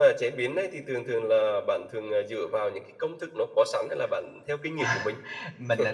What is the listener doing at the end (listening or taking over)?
taking over